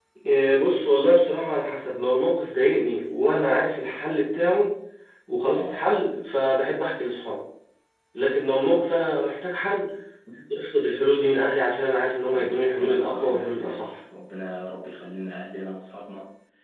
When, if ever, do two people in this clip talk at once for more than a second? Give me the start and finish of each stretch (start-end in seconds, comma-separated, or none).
12.3-14.0